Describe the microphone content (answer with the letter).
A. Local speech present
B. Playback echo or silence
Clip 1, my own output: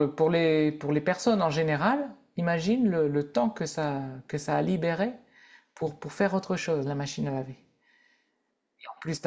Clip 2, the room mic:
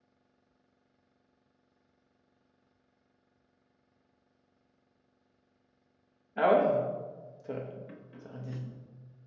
A